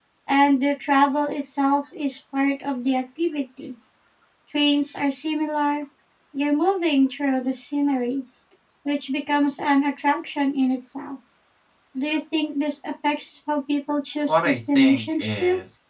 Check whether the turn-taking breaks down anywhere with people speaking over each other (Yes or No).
Yes